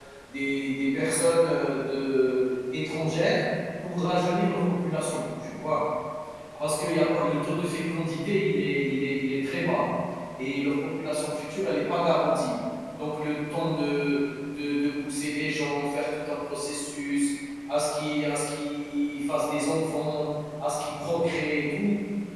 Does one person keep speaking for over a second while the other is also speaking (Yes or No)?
No